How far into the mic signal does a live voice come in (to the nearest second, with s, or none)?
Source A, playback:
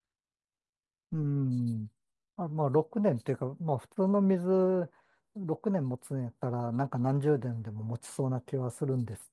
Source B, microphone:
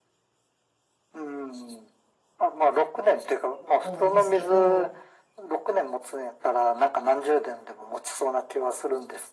4 s